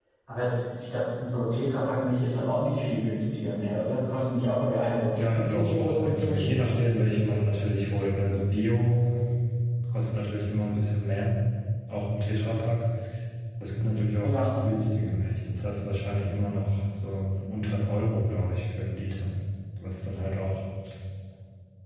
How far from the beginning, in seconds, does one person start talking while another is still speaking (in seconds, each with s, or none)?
5.2 s